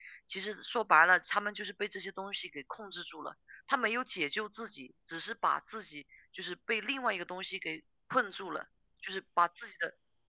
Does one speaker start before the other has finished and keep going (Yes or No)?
No